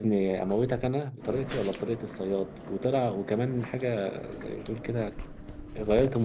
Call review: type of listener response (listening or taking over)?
listening